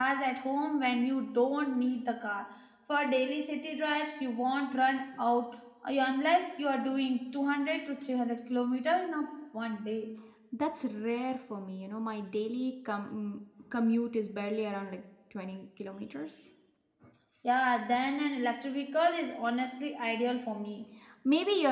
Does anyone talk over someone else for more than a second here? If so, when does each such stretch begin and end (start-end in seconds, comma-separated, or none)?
none